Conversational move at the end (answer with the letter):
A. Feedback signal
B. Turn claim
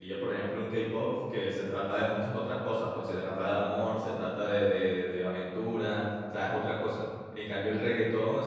A